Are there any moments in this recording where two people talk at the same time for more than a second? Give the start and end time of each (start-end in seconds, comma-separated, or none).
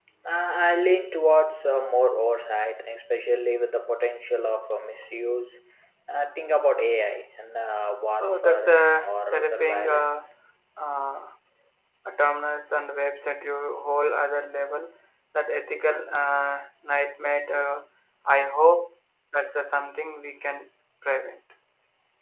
8.2-10.3